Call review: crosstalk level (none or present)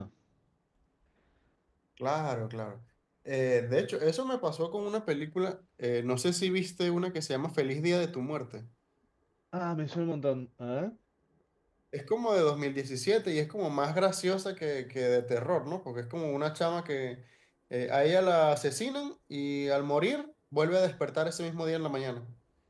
none